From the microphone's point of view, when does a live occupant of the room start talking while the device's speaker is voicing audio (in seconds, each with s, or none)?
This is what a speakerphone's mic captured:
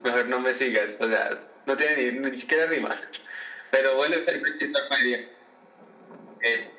none